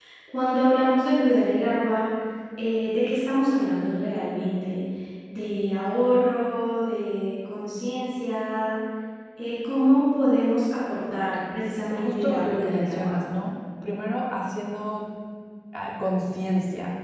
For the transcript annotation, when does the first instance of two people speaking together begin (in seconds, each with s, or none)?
11.9 s